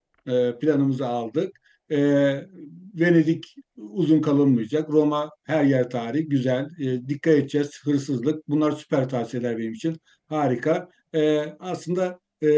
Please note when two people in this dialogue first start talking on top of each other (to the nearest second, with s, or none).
none